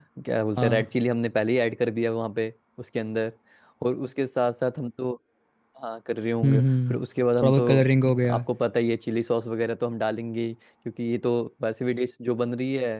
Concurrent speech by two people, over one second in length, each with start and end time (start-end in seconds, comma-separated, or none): none